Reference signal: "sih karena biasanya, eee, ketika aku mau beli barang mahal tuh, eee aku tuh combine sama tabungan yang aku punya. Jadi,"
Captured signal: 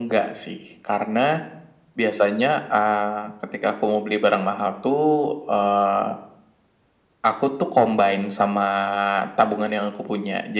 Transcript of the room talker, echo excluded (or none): none